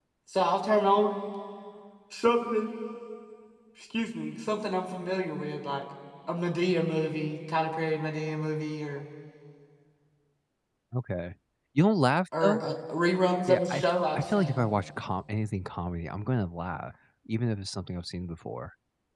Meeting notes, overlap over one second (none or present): present